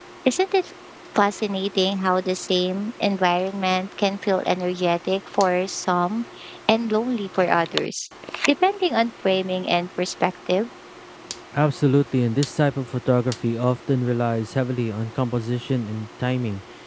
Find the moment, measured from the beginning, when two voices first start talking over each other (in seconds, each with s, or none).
none